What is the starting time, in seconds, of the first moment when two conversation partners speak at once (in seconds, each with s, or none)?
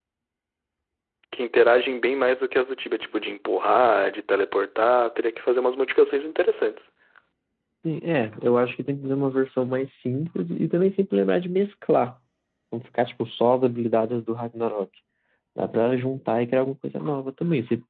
none